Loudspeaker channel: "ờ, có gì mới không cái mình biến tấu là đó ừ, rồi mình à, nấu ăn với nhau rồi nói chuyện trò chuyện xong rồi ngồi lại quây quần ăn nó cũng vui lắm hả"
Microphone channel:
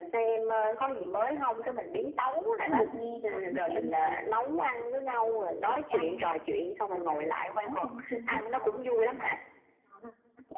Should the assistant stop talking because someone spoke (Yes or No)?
Yes